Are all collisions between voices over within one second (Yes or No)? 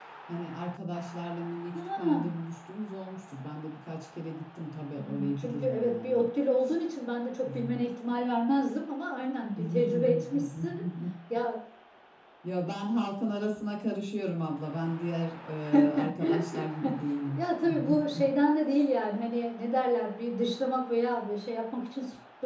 No